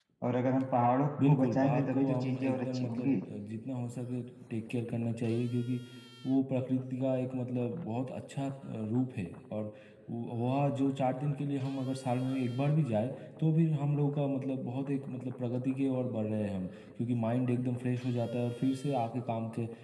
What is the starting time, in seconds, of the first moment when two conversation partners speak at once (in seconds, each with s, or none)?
1.2 s